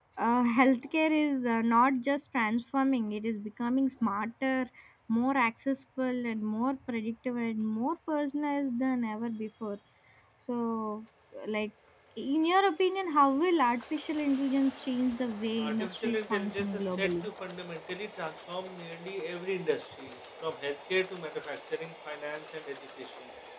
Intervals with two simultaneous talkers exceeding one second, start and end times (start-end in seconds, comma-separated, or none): 15.6-17.2